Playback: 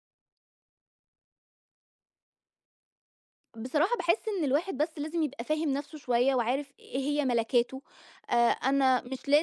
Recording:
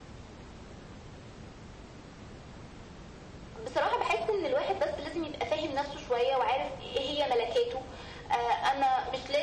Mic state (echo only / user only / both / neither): echo only